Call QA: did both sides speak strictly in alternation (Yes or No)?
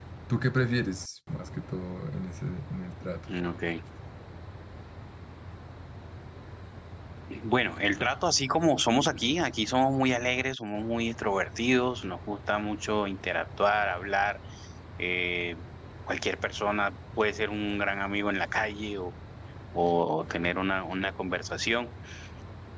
Yes